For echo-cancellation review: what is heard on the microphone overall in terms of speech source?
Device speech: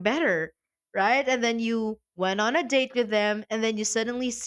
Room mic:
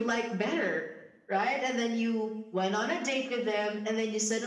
echo only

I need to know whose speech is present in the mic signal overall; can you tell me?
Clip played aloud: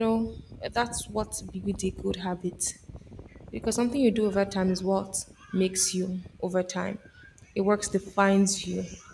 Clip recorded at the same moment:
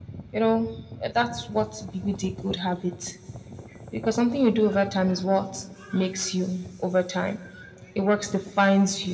echo only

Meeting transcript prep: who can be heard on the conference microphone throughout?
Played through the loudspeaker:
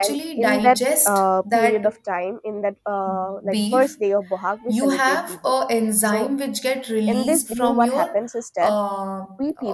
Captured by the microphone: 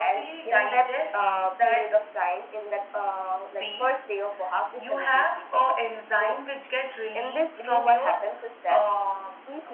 echo only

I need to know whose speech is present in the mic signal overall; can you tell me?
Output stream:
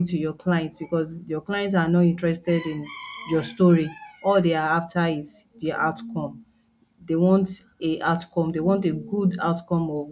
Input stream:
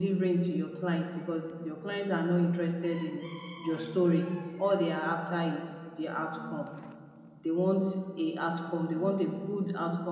echo only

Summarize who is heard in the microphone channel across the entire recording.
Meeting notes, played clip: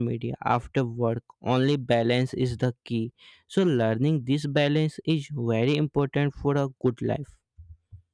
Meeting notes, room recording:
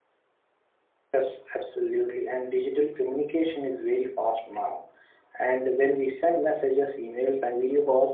user only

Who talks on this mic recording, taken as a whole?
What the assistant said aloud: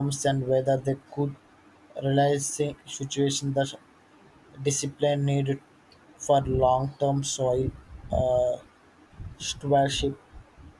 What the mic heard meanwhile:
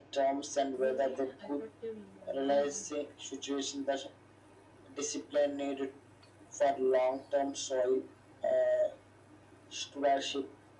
both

